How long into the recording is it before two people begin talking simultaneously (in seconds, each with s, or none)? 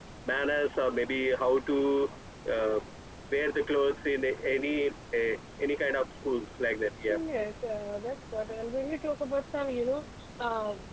none